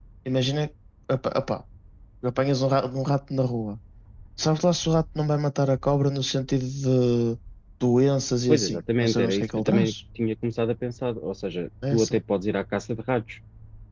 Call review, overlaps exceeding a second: present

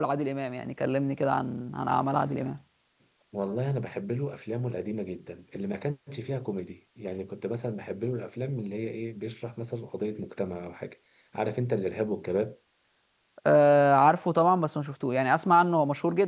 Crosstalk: none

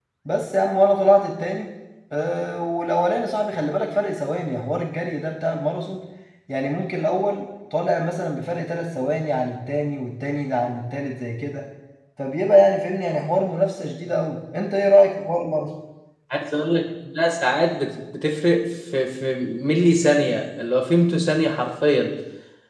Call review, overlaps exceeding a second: none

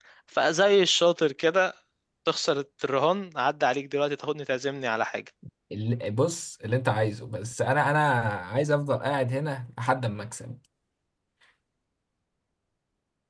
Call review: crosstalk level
none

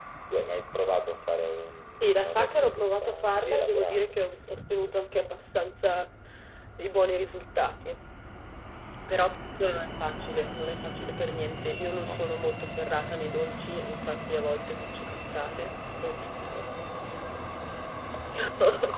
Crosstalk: present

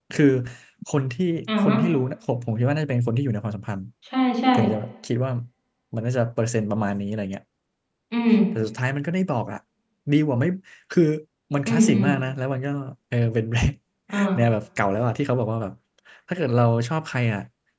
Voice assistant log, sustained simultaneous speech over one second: none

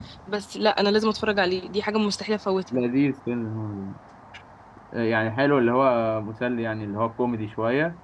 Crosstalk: none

